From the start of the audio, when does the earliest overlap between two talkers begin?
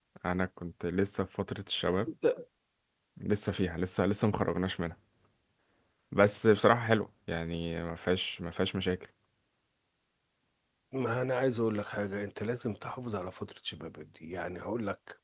none

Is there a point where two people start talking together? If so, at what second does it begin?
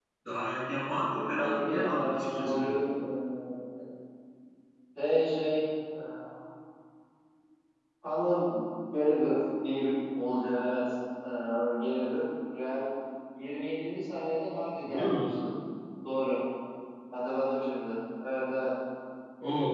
0.8 s

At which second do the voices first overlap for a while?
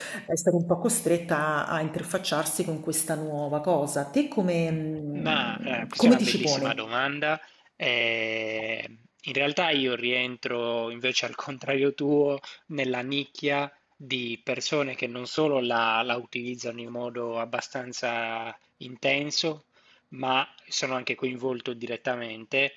5.1 s

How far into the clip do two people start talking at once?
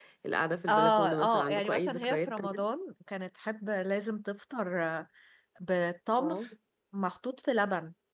0.7 s

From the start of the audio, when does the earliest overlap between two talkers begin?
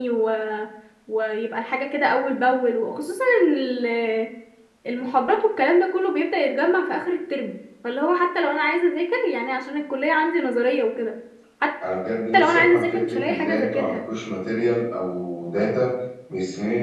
12.4 s

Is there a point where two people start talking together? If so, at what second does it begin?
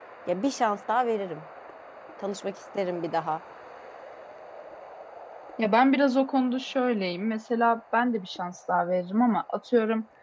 none

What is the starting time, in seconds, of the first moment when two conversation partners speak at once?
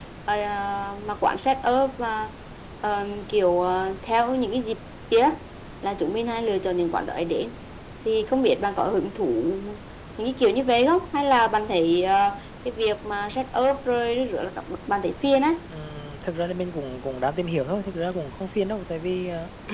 none

